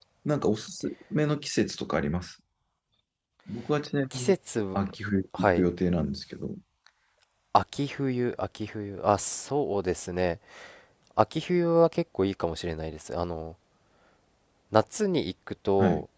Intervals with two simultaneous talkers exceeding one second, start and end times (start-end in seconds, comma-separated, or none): none